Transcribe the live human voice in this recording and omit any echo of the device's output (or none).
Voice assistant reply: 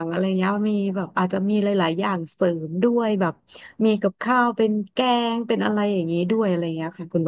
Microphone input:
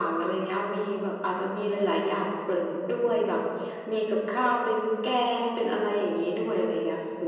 none